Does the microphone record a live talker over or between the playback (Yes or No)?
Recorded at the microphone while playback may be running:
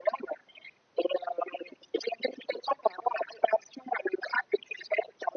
No